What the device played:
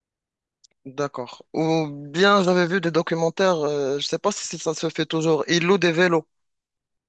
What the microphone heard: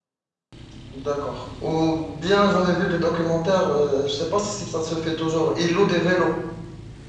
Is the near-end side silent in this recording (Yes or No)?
Yes